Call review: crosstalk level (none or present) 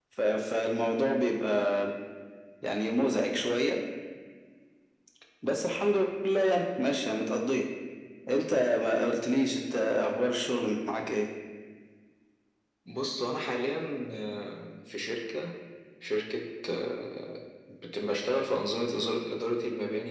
none